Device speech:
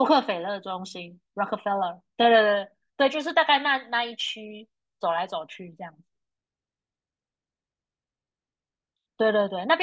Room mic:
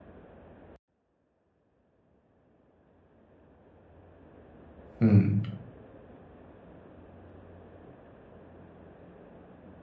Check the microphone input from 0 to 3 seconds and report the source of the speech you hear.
neither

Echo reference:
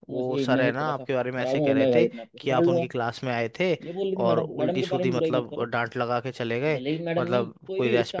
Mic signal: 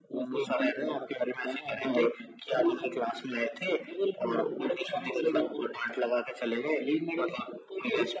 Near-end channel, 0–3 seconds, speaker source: echo only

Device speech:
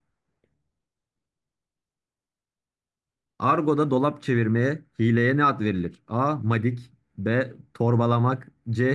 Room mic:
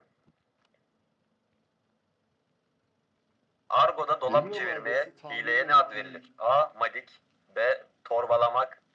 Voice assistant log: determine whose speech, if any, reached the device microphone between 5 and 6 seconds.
both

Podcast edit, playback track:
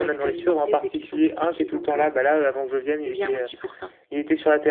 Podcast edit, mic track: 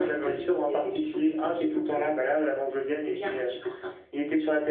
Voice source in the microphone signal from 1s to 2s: echo only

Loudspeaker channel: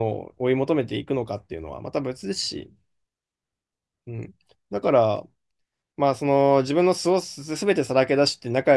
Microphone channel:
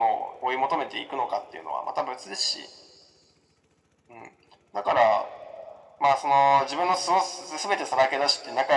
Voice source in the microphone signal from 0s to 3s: echo only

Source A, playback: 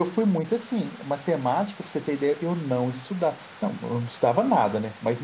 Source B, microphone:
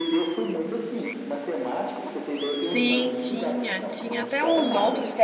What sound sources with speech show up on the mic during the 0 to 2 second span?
echo only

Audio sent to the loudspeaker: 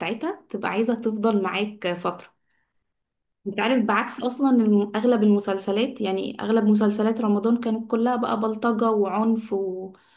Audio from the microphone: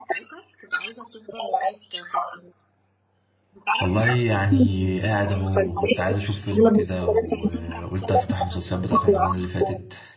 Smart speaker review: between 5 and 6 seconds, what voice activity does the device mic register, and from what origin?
both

